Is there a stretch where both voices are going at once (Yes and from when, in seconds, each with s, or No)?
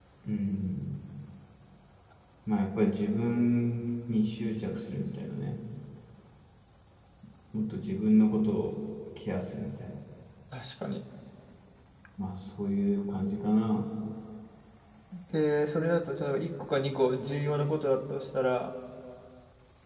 No